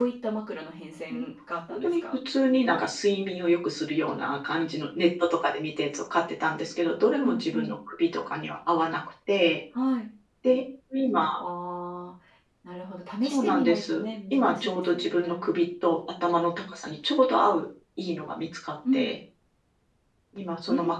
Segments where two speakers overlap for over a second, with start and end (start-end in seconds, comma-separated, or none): 13.2-15.5